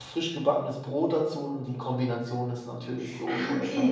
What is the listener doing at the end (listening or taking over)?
taking over